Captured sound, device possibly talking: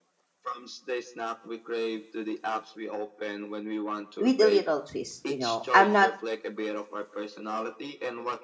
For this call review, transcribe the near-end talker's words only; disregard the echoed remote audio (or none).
with a little twist. You know, I'm not